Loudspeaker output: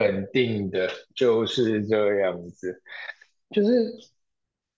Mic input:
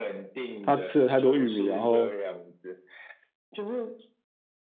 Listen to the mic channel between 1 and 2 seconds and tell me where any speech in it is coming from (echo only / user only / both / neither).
both